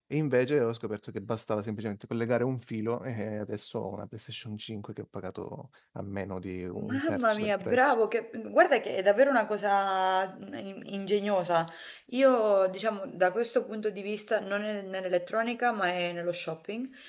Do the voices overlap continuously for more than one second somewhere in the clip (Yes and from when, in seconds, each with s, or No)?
Yes, from 6.7 s